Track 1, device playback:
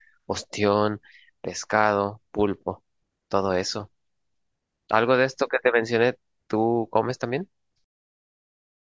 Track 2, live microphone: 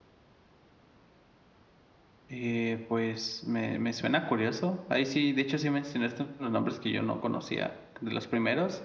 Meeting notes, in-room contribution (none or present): present